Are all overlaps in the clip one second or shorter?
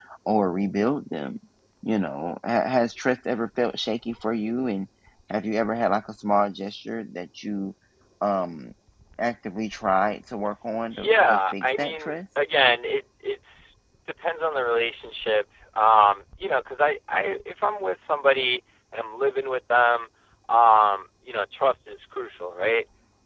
No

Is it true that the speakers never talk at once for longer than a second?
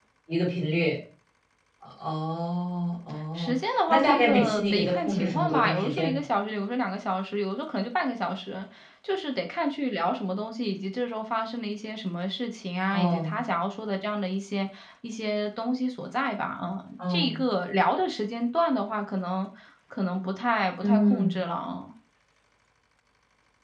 No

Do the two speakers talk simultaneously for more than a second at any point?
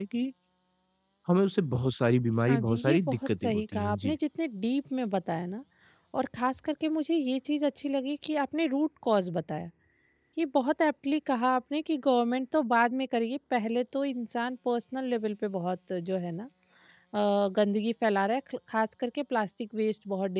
Yes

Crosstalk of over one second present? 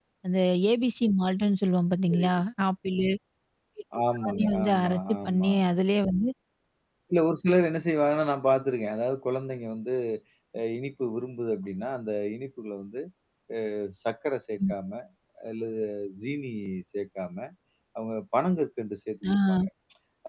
Yes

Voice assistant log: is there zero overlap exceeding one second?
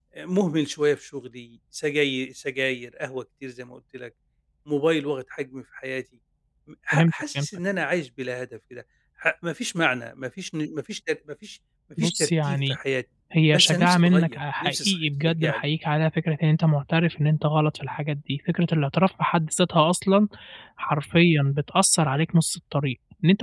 No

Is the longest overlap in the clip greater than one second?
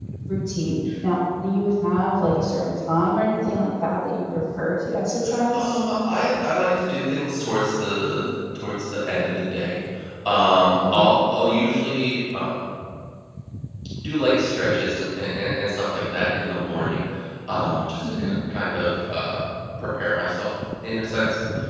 No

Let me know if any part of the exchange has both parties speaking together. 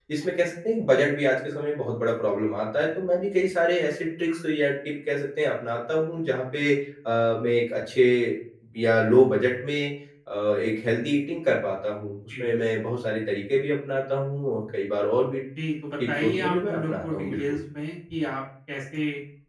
Yes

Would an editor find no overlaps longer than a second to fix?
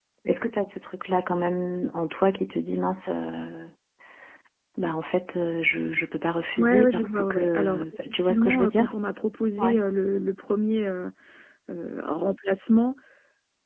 No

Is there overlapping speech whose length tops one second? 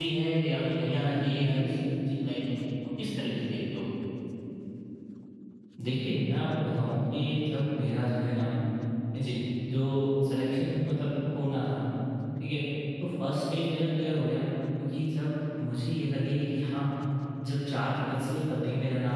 No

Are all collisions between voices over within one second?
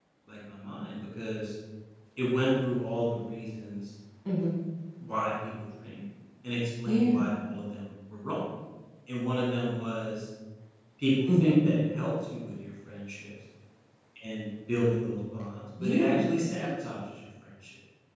Yes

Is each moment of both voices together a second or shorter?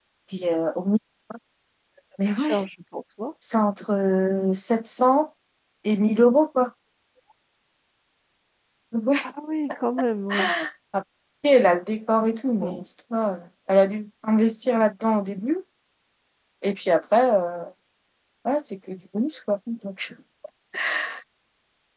Yes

